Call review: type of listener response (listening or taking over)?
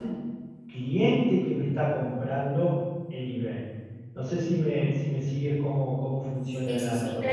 taking over